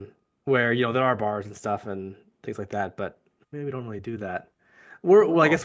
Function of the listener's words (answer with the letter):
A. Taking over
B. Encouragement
B